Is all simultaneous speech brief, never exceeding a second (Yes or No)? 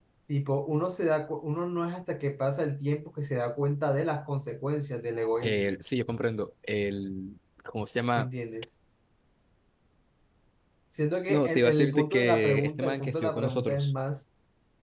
No